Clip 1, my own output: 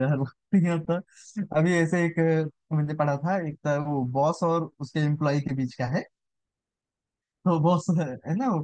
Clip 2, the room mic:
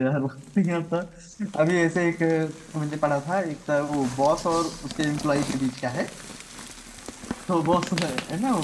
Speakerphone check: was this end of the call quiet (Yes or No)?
Yes